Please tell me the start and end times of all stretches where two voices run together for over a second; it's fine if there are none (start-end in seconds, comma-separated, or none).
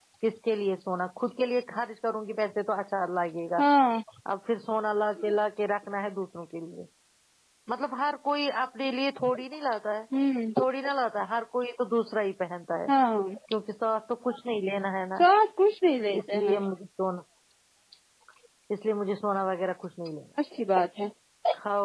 none